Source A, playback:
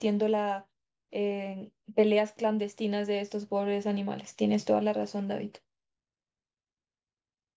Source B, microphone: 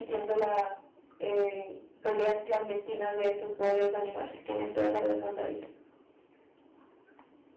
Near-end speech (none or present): none